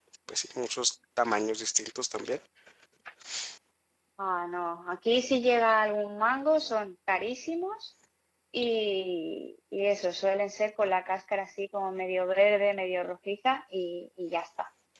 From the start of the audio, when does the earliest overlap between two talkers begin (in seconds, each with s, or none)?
none